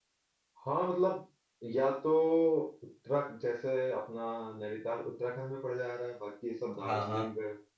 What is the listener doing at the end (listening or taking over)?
listening